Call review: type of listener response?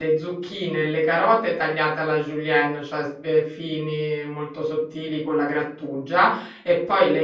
listening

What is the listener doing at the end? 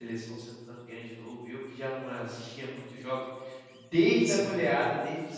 listening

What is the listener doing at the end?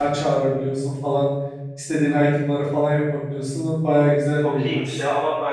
taking over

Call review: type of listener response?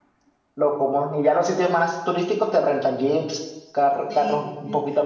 taking over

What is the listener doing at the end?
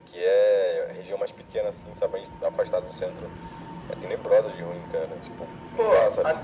taking over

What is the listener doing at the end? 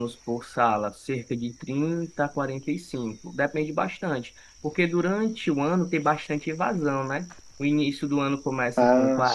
listening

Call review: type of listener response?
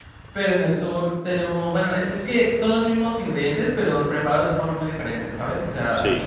listening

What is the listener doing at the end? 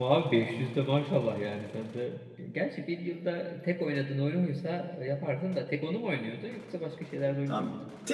taking over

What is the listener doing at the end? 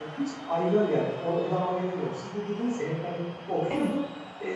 listening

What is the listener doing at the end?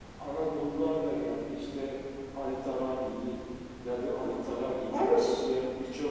listening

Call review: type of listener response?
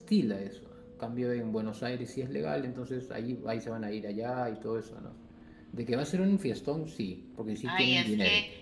taking over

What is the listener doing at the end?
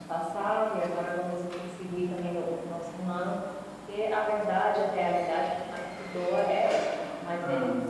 listening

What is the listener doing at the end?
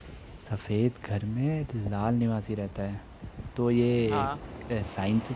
listening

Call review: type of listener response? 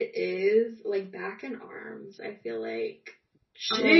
taking over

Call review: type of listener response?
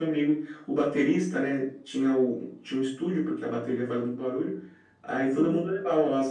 listening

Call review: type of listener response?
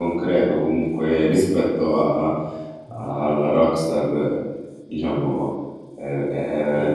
listening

